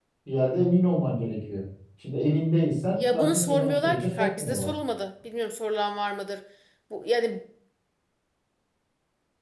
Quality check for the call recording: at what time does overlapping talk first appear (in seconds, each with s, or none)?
2.9 s